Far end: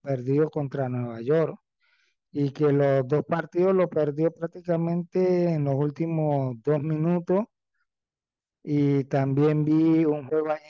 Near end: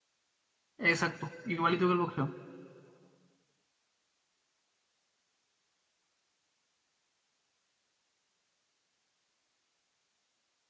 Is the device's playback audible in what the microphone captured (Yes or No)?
No